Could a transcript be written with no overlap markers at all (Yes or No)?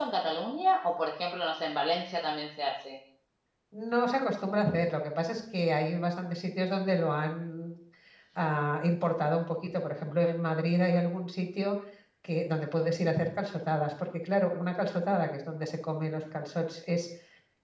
Yes